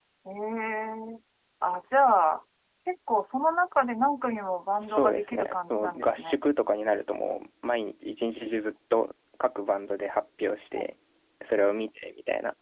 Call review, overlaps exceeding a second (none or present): present